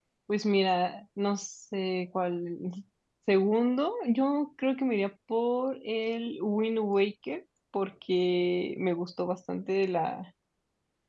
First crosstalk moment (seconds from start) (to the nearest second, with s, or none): none